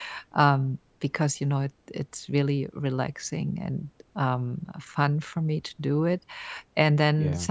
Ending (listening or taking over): listening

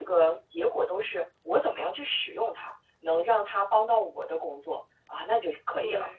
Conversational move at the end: taking over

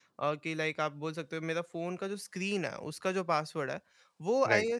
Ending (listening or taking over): listening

